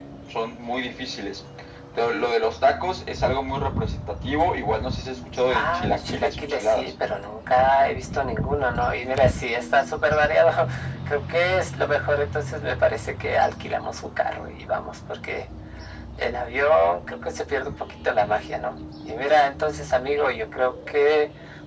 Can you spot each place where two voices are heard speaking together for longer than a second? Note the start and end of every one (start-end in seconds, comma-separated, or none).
5.5-6.9